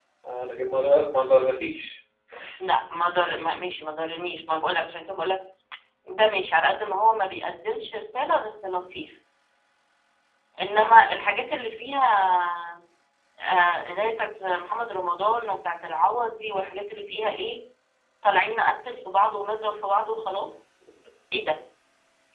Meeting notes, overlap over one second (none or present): none